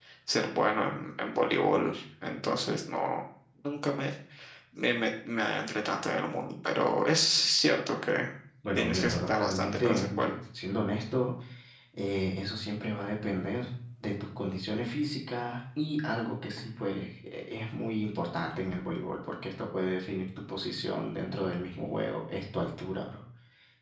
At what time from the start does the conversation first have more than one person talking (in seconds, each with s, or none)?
8.8 s